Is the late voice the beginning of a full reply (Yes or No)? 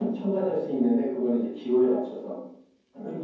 Yes